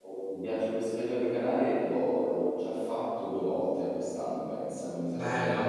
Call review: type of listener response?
taking over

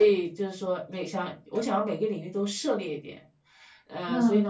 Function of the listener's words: listening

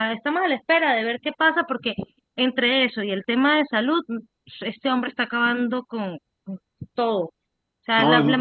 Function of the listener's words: listening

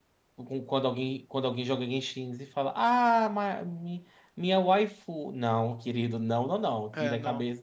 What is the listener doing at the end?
listening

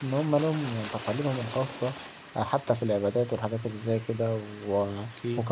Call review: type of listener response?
listening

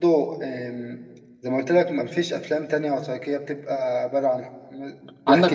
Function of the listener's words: taking over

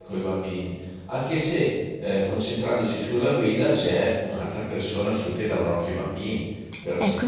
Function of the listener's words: taking over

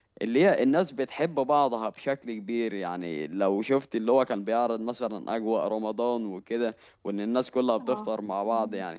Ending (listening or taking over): listening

